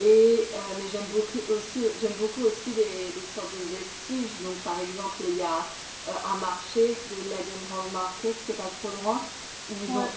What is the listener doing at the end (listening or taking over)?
listening